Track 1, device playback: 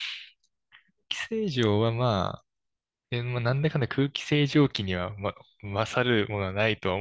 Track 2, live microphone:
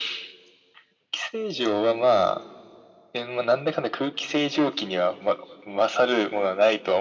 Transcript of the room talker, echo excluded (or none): none